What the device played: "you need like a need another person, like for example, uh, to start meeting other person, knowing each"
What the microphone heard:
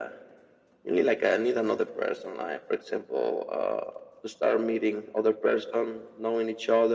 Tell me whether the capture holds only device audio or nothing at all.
Yes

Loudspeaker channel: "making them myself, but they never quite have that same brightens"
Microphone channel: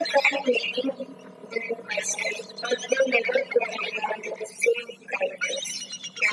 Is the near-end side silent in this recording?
Yes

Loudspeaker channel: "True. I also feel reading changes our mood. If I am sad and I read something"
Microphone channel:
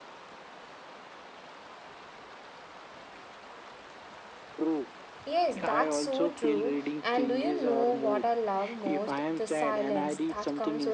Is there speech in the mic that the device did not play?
Yes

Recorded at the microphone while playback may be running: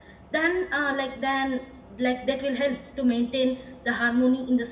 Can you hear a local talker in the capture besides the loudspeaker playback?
Yes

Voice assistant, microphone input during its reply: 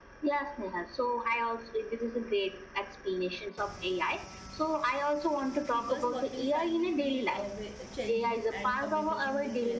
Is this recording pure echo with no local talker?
No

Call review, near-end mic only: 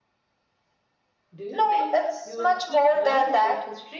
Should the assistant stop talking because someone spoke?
Yes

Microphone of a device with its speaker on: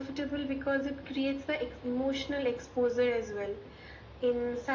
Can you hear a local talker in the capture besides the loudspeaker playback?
No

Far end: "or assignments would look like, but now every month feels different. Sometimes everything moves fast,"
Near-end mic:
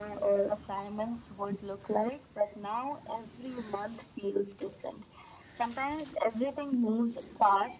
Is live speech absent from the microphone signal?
Yes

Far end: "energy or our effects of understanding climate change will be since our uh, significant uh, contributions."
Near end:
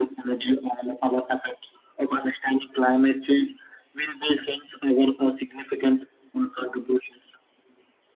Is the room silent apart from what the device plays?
Yes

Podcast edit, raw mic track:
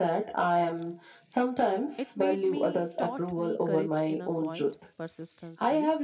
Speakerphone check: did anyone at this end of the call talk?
Yes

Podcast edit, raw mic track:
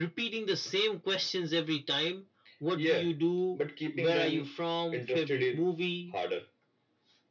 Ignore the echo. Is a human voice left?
No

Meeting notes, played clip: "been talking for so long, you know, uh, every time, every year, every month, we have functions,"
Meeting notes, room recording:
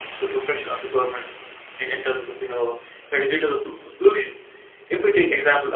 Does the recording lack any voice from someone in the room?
No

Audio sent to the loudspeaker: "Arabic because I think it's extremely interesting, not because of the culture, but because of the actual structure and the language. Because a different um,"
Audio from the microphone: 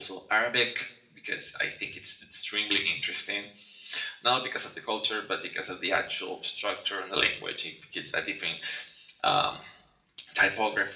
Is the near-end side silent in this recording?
Yes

